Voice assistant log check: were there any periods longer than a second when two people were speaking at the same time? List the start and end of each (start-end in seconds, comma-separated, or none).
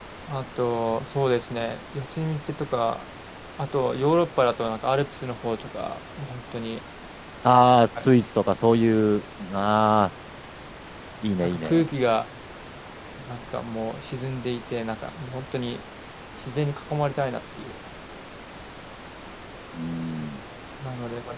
none